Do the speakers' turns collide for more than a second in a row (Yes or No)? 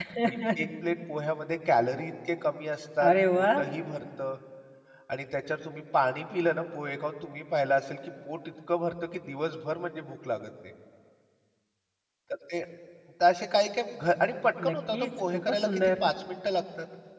Yes